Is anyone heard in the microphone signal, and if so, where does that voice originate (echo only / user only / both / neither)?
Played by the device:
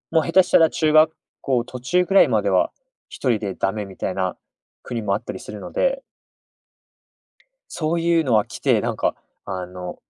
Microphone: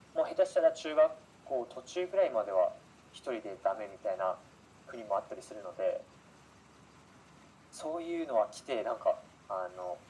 echo only